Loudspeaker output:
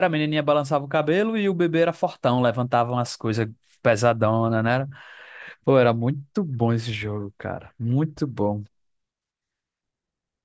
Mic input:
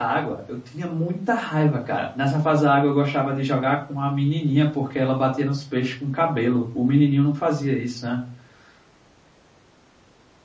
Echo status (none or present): none